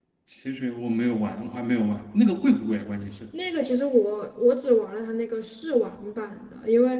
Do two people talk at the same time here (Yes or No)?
No